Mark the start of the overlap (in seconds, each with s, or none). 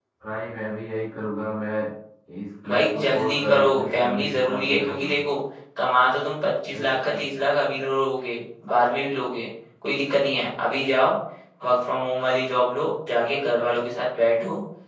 2.7 s